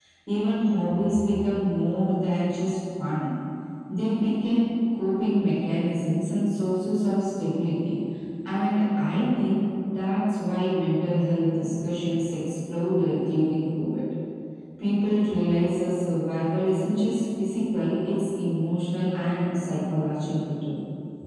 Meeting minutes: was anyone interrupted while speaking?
No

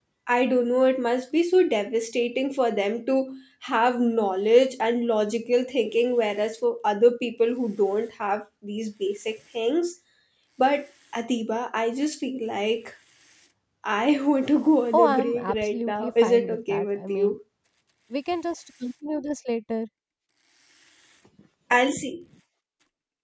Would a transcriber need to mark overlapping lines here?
Yes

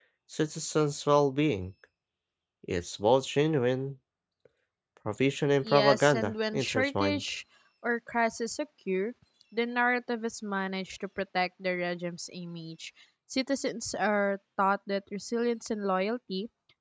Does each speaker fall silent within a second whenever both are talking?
No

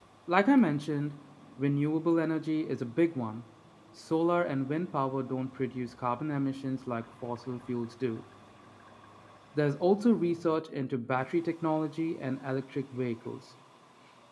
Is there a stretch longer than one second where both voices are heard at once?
No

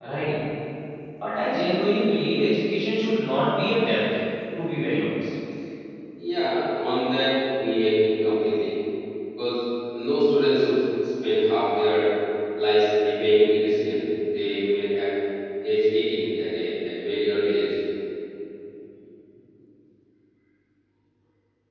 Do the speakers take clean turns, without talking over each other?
Yes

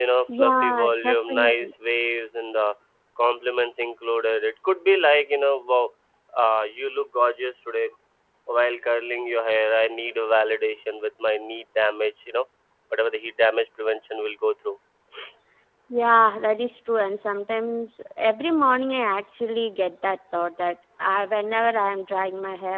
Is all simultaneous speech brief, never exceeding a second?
No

